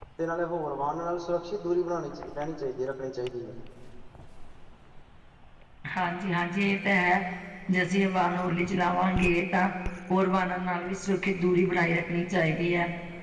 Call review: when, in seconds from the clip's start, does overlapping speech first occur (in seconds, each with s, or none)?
none